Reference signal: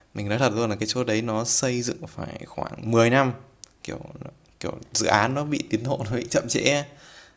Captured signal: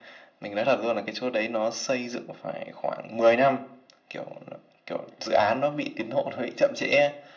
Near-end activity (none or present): none